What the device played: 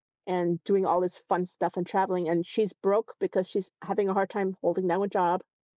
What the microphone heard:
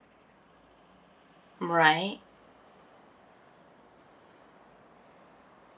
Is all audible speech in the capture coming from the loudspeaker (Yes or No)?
No